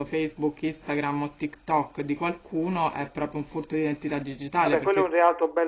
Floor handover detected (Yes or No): Yes